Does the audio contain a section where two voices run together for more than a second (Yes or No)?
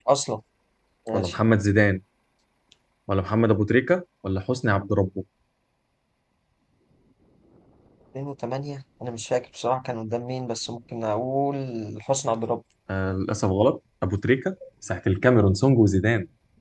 No